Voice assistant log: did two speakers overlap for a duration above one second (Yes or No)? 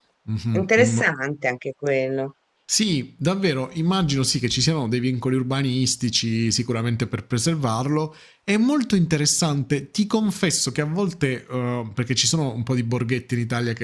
No